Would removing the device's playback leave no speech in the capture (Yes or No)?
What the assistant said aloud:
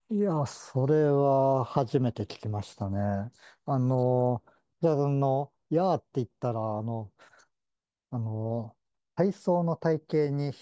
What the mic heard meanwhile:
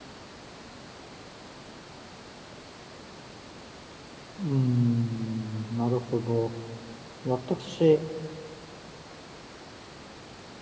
No